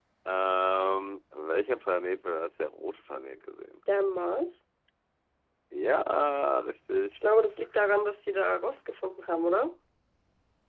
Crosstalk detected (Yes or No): No